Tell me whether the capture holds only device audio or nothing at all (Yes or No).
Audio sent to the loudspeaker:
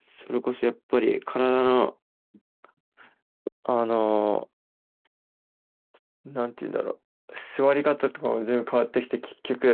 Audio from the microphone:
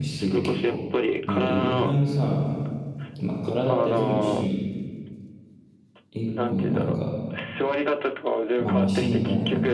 No